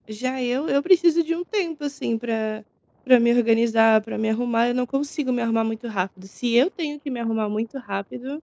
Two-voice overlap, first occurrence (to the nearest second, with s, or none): none